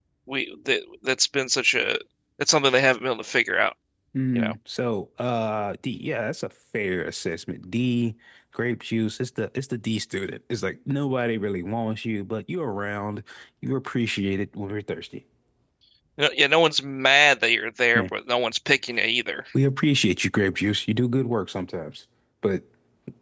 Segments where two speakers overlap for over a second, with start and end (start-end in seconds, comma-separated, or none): none